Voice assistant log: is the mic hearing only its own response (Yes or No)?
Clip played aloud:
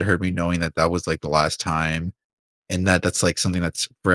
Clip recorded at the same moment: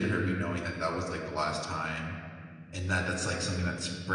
Yes